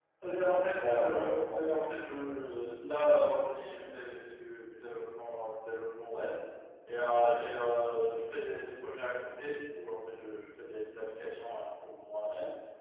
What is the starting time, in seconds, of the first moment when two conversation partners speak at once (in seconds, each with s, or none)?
0.6 s